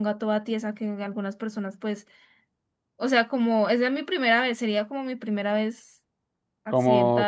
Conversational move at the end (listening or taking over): taking over